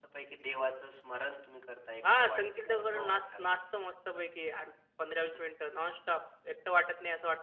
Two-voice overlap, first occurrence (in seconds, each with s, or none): 2.0 s